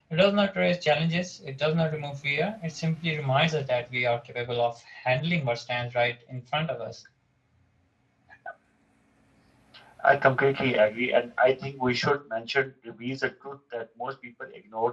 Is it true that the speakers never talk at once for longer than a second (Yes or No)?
Yes